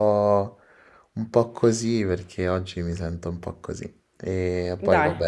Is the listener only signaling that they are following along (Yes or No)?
Yes